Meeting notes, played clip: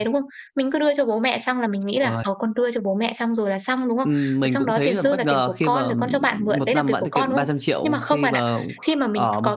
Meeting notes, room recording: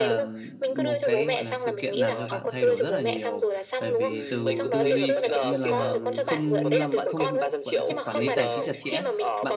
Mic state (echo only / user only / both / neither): both